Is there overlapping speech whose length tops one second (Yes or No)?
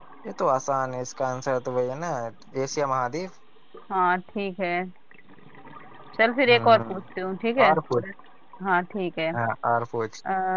No